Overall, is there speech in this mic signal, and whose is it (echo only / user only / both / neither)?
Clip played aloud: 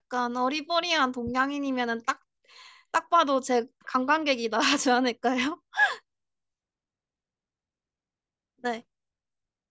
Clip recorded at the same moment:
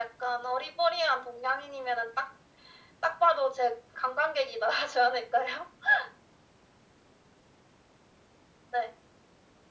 echo only